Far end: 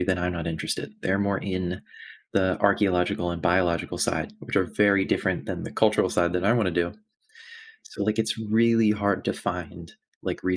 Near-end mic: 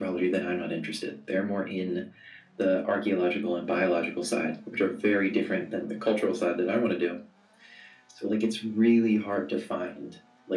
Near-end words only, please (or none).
none